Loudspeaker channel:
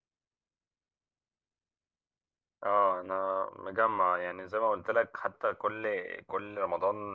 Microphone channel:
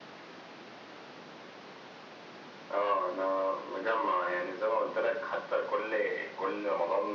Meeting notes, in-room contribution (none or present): none